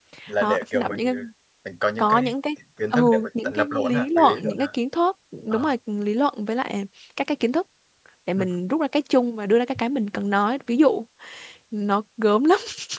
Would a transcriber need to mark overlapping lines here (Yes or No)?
Yes